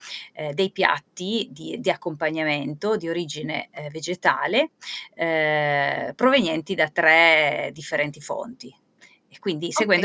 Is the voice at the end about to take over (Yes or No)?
Yes